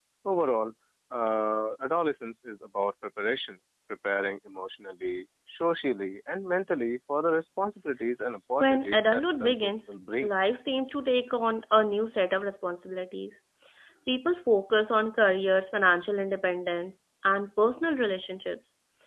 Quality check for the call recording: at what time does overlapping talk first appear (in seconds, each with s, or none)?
8.6 s